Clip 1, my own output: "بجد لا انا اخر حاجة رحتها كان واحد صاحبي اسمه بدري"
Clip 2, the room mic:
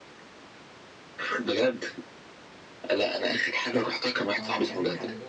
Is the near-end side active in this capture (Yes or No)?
Yes